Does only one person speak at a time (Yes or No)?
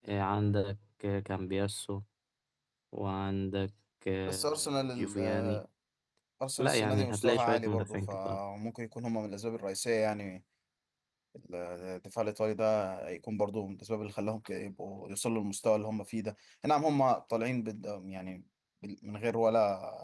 No